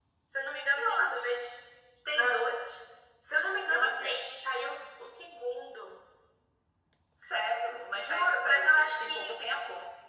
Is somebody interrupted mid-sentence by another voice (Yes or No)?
Yes